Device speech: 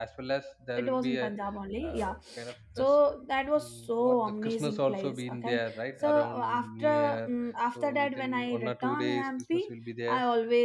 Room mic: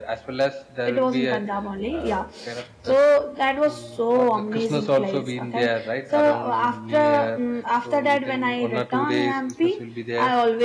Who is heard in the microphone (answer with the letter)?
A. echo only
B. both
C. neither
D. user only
A